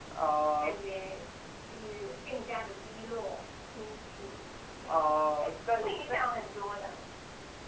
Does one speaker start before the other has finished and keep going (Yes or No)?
Yes